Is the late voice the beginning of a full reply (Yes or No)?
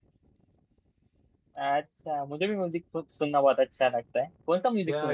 Yes